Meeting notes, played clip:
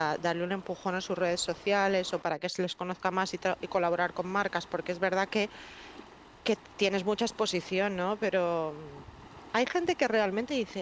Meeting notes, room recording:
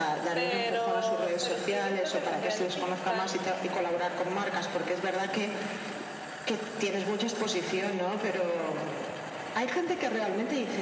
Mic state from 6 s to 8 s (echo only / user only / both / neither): echo only